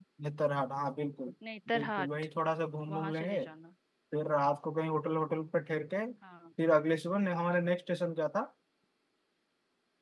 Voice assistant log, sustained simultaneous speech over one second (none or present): none